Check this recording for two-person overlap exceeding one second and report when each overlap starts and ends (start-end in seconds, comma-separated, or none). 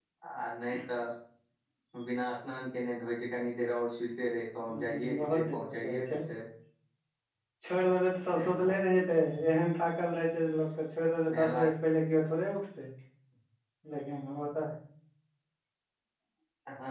4.8-6.0